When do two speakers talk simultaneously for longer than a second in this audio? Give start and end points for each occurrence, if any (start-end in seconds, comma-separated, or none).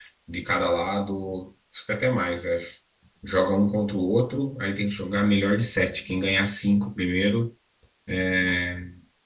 none